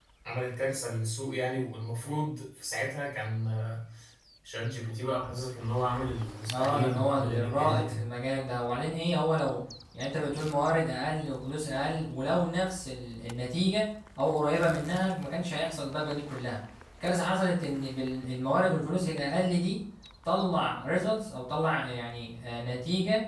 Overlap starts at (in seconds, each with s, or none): 6.5 s